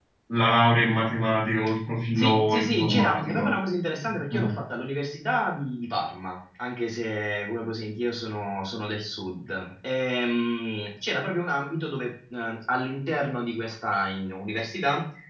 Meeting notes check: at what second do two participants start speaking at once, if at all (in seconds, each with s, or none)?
2.2 s